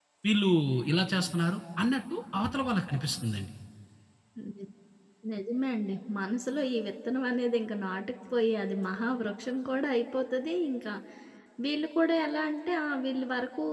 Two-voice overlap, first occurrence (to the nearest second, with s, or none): none